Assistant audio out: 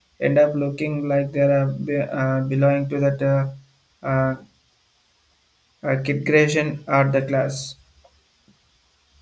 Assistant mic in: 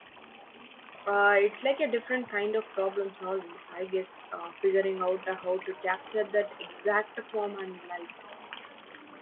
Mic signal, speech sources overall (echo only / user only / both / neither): user only